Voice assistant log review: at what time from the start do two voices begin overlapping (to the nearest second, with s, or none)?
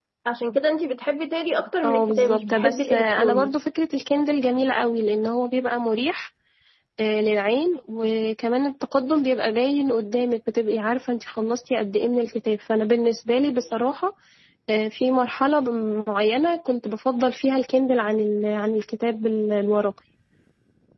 2 s